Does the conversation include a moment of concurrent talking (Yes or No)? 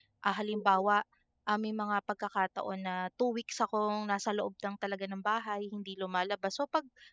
No